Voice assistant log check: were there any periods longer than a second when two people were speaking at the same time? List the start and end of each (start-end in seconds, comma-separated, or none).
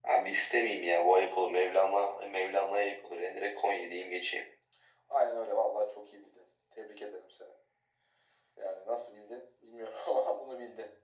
none